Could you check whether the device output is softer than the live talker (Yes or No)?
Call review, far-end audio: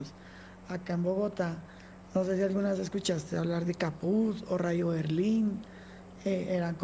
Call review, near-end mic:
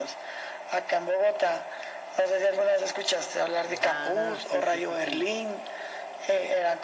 No